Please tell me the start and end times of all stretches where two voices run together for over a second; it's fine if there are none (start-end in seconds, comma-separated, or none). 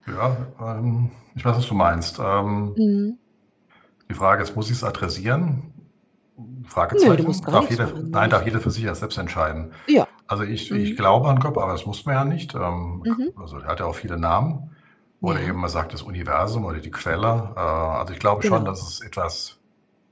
7.0-8.4